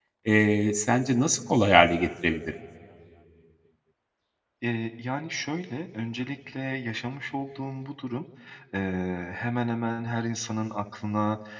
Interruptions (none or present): none